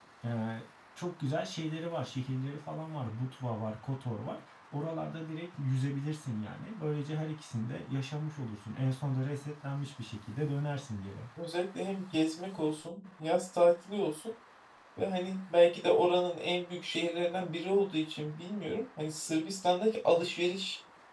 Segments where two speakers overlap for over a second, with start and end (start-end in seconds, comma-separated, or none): none